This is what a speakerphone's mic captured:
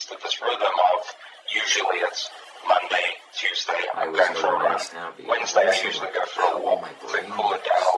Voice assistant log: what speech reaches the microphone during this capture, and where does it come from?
both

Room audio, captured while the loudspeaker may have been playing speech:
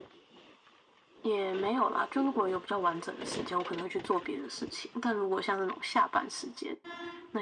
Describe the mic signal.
echo only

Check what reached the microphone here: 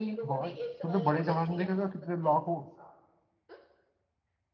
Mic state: both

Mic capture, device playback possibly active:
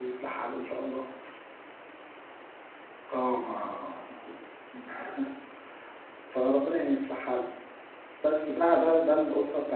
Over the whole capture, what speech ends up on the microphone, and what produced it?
user only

